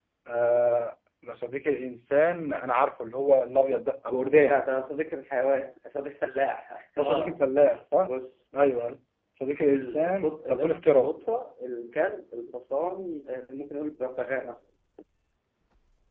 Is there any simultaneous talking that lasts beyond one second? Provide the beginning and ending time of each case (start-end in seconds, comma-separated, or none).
9.7-11.1